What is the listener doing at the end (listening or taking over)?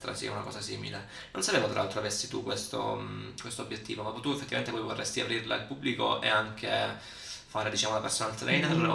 taking over